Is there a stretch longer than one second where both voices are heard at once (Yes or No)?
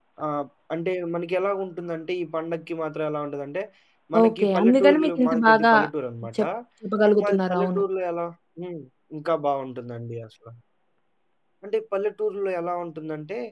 Yes